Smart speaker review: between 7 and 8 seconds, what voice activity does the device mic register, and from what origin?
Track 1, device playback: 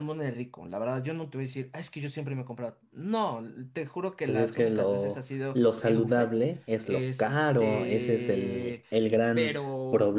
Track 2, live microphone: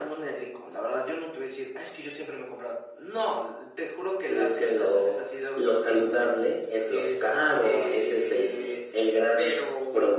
echo only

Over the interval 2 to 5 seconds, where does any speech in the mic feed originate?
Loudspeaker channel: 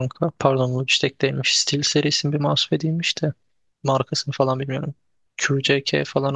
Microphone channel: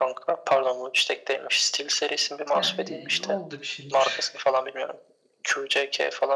both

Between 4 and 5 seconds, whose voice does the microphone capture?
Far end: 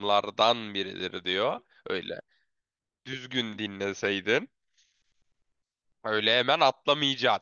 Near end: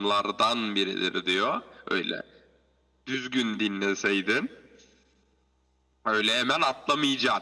echo only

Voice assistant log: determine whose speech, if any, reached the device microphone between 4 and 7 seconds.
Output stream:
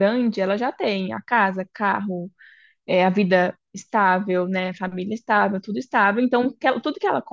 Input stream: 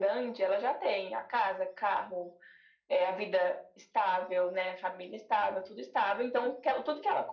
echo only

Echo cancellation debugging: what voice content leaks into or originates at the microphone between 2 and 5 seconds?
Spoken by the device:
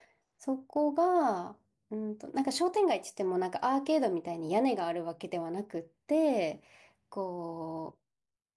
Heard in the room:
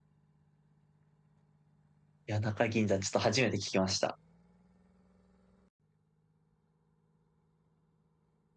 user only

